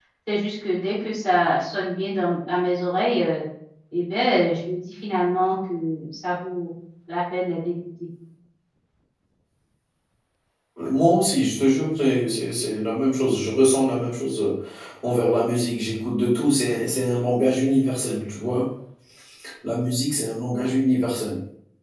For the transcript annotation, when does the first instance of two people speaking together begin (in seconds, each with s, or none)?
none